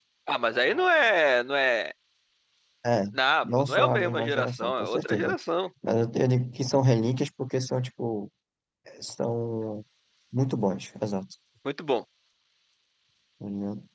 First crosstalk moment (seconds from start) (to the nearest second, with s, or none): 3 s